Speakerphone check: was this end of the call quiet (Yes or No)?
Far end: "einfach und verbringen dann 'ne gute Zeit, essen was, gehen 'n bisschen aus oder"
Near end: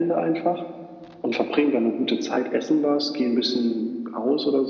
Yes